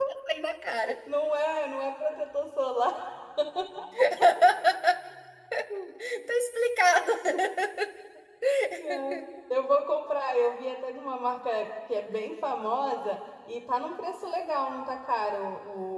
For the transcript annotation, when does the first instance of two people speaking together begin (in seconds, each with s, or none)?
none